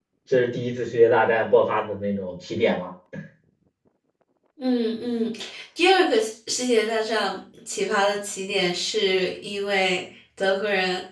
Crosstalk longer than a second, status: none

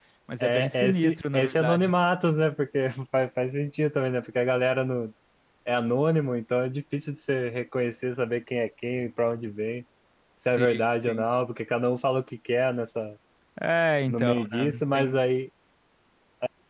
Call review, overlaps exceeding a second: present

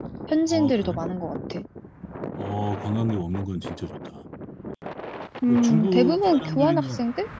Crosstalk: present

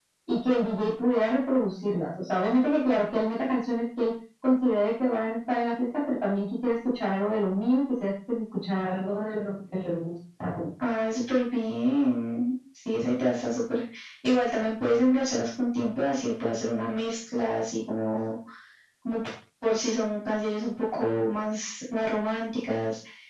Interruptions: none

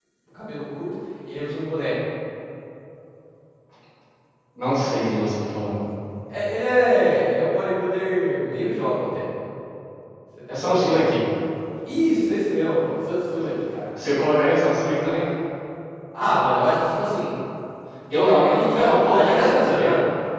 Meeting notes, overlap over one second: present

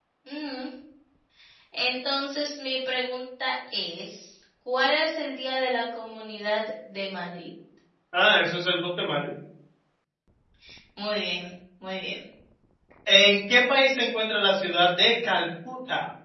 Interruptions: none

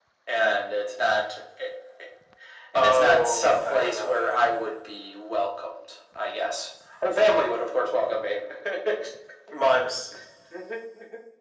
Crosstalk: present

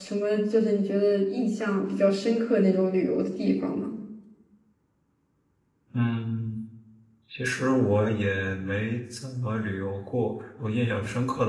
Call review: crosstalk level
none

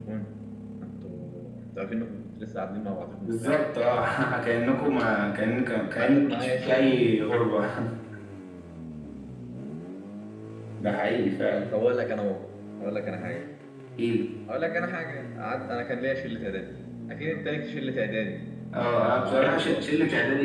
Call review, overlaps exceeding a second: present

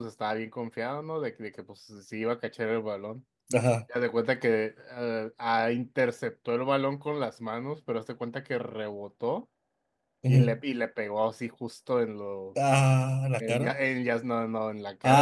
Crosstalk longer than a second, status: none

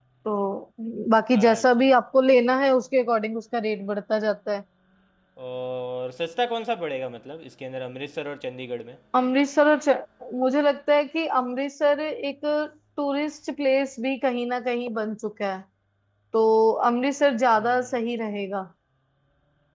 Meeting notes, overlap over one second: none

